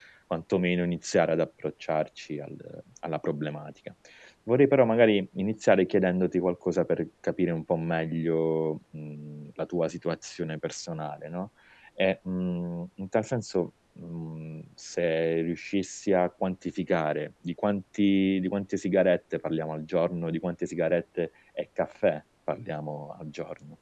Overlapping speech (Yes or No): No